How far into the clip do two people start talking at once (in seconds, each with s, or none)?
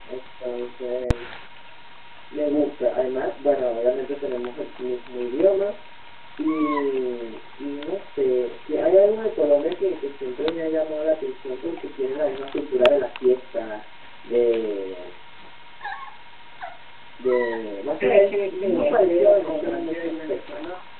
17.9 s